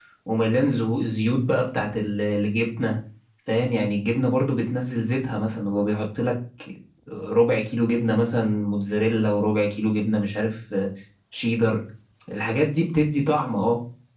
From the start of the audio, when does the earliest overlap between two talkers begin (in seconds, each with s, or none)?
none